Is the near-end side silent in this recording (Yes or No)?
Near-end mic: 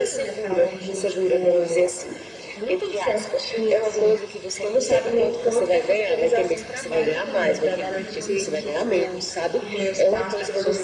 No